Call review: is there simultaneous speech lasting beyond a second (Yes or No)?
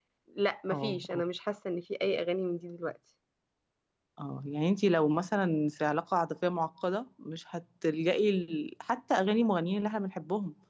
No